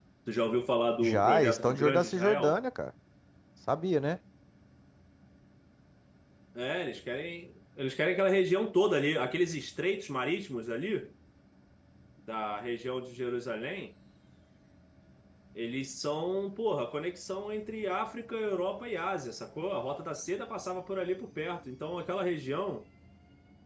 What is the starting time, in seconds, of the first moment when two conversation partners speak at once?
1.0 s

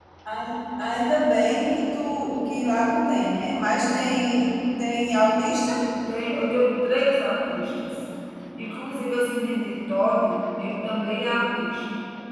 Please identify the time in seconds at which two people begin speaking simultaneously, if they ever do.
none

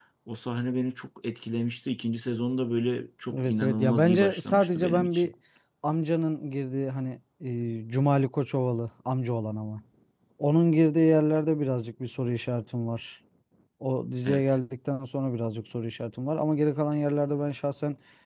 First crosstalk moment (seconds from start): 3.4 s

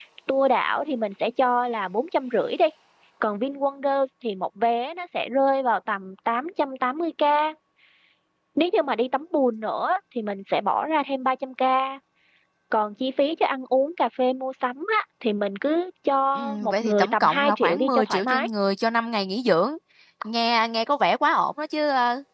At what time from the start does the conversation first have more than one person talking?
16.4 s

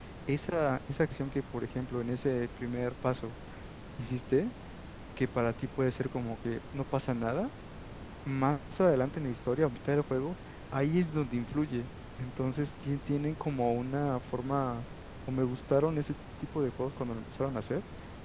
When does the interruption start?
none

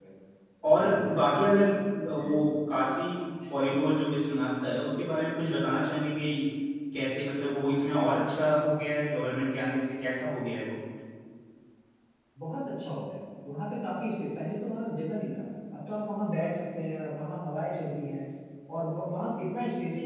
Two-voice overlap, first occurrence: none

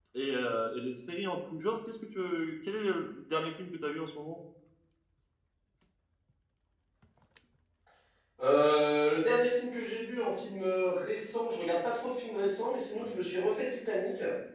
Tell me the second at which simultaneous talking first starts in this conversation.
none

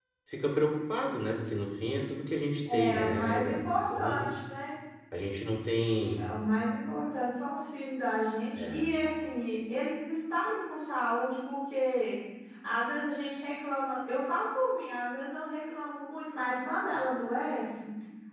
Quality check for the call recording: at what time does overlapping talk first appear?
2.7 s

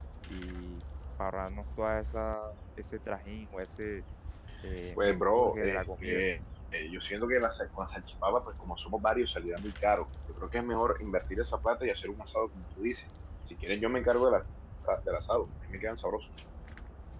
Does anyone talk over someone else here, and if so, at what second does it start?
5.0 s

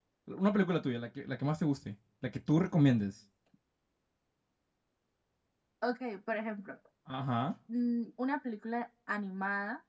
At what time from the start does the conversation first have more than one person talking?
none

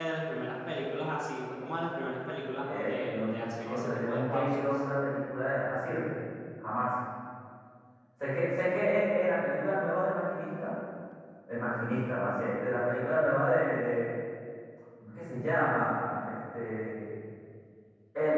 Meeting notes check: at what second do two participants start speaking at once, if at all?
2.6 s

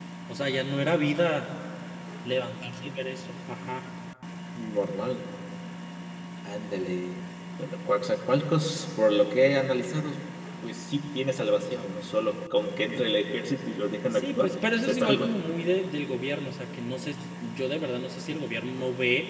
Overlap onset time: 14.1 s

